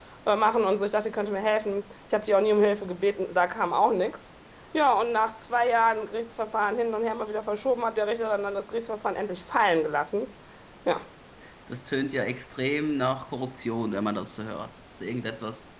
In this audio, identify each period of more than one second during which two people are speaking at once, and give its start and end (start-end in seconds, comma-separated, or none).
none